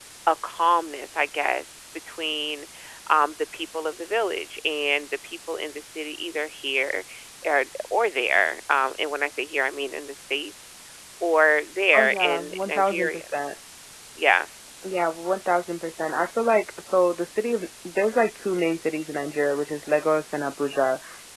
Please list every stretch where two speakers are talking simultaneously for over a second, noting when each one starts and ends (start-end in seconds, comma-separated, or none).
11.9-13.2